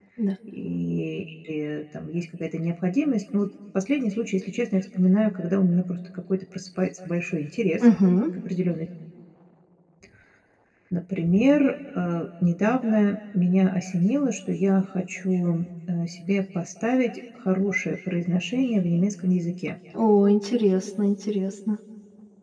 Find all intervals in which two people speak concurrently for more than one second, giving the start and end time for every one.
none

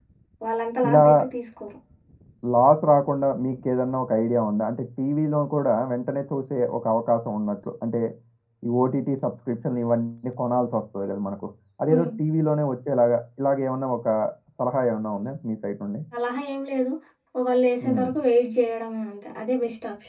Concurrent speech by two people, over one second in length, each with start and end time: none

